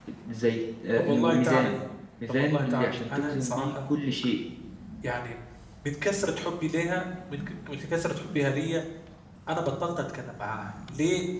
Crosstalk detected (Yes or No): Yes